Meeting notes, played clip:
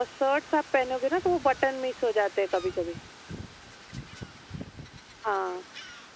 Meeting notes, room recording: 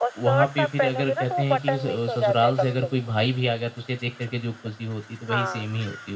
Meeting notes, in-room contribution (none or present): present